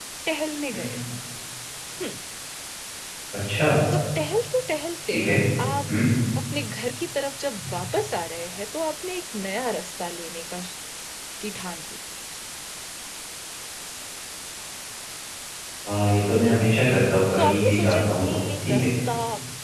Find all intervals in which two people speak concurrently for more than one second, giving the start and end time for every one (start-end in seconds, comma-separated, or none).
17.4-18.9